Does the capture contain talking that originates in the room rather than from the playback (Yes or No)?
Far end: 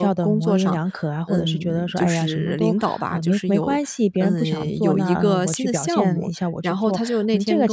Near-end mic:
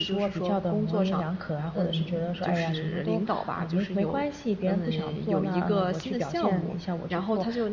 No